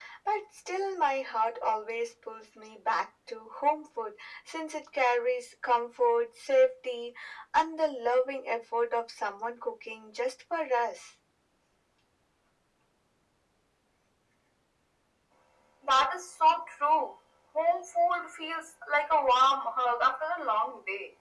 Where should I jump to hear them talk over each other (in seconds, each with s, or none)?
none